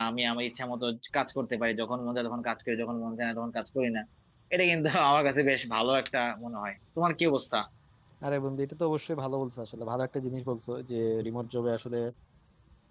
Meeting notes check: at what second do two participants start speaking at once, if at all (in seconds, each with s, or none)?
none